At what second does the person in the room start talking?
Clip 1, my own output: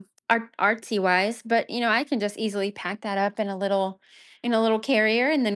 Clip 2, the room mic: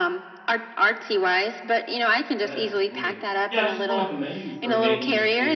2.3 s

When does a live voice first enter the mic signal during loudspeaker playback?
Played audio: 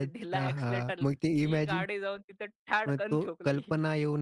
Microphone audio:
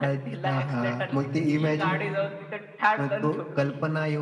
none

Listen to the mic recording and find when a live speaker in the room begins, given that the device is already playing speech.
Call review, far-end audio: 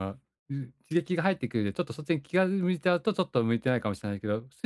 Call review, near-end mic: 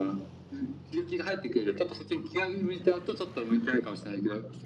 none

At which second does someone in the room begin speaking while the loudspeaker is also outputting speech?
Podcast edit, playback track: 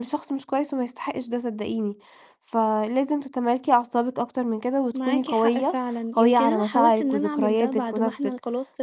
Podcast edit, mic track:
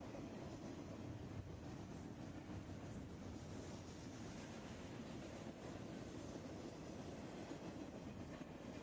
none

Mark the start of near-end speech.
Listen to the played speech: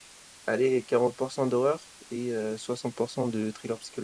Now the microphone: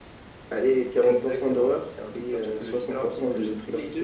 0.9 s

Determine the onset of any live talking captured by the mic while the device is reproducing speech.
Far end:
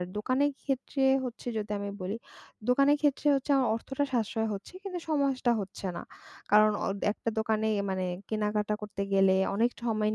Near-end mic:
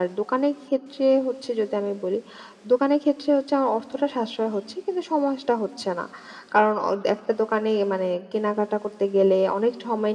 none

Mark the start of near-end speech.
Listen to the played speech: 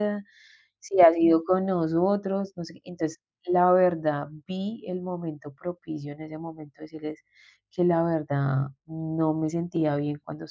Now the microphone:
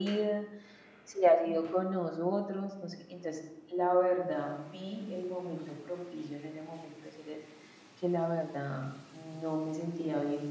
none

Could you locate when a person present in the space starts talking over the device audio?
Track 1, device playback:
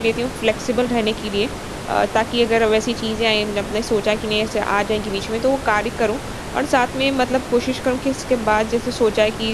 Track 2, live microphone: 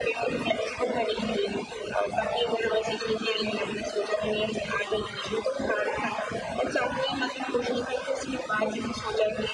none

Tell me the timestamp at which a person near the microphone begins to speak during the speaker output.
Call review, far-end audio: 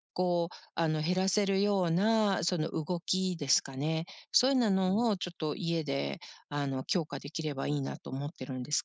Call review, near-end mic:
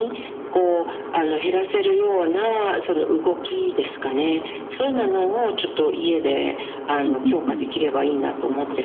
7.0 s

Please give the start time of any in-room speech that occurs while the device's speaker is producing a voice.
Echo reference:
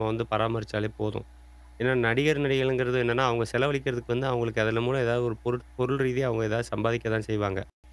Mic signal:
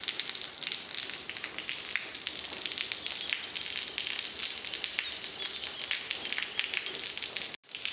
none

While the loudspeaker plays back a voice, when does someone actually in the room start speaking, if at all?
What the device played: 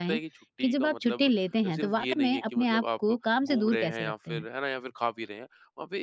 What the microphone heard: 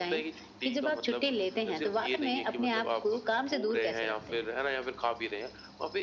none

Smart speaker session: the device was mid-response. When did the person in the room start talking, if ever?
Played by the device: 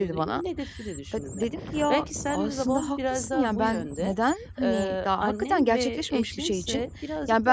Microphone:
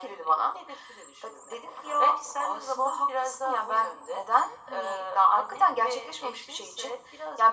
none

